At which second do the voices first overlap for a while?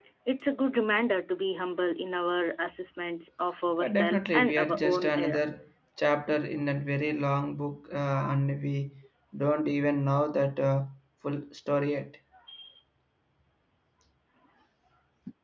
4 s

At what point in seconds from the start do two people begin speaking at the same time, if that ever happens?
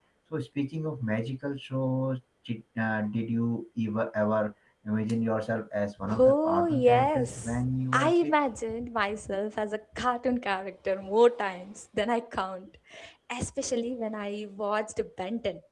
6 s

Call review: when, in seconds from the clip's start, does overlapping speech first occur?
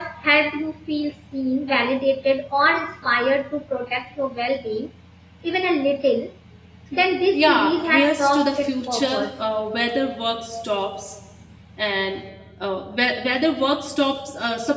7 s

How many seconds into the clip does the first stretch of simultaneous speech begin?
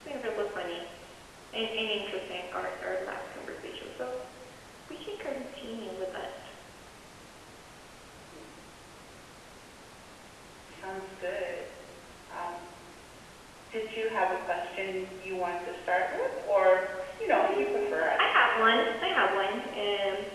17 s

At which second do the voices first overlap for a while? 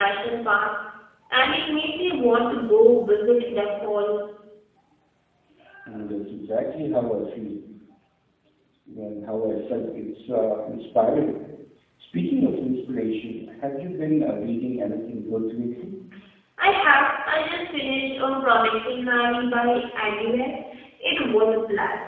none

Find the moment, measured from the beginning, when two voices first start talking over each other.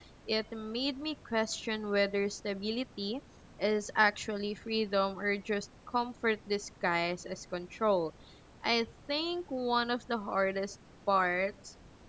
none

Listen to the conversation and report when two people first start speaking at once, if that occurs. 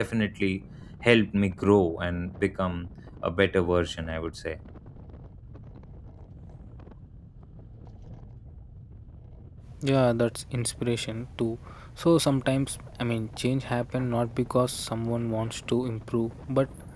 none

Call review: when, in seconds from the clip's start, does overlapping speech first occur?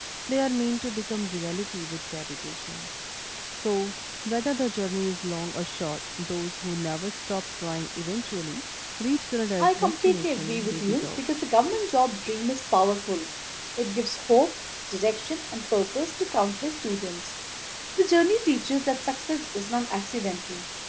10 s

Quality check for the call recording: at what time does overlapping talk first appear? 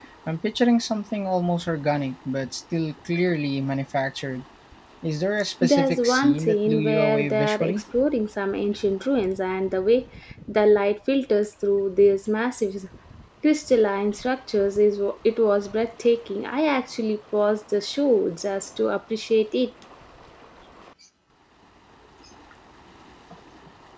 6 s

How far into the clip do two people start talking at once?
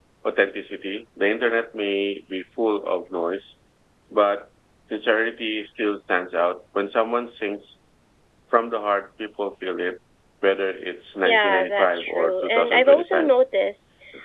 11 s

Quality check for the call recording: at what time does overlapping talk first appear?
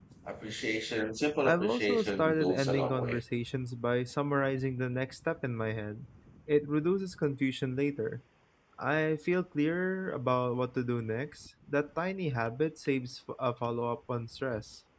1 s

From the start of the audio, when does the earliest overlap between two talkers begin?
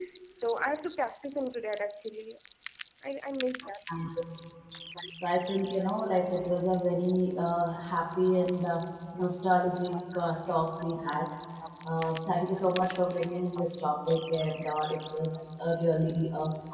none

